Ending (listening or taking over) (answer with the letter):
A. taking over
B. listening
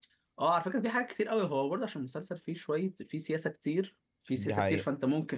B